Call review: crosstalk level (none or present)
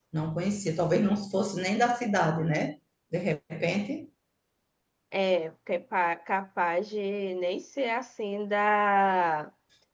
none